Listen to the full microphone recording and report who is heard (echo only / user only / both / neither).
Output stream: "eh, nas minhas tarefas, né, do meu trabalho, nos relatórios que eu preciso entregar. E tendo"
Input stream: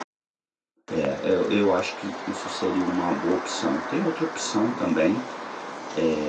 user only